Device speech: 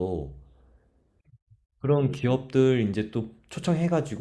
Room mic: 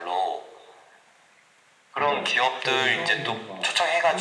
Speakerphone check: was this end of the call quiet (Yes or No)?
No